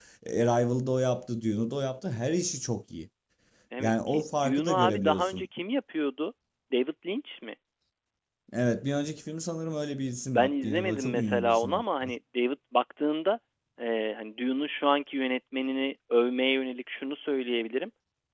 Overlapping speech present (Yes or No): Yes